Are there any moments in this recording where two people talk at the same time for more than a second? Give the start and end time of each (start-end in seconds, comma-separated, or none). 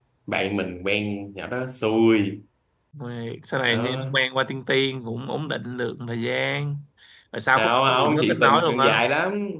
7.6-9.0